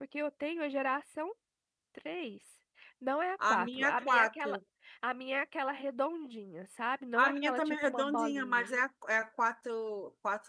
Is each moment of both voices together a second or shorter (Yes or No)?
No